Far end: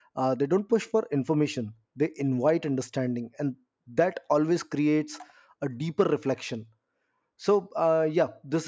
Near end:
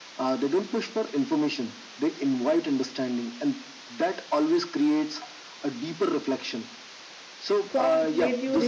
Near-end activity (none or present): present